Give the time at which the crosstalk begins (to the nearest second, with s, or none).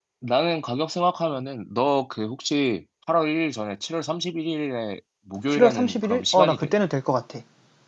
5 s